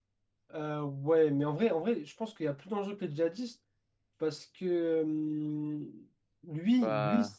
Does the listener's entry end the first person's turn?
No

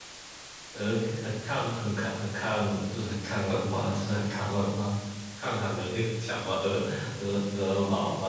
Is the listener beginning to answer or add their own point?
Yes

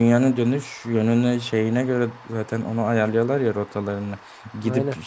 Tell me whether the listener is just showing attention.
Yes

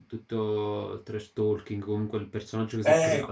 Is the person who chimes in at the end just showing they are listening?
No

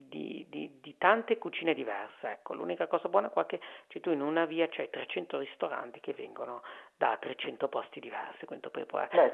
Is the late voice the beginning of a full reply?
Yes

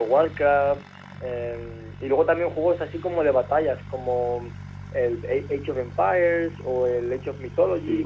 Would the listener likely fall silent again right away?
No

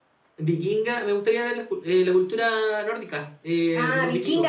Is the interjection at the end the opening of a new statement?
Yes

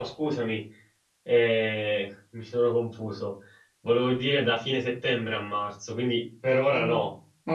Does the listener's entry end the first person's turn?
Yes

